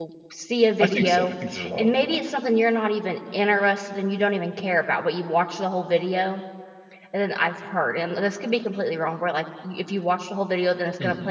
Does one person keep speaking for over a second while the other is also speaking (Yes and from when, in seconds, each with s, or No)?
No